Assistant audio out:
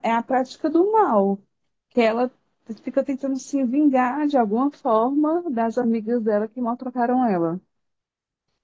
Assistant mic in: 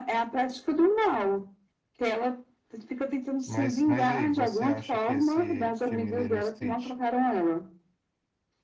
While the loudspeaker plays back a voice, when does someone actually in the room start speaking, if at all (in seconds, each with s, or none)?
3.4 s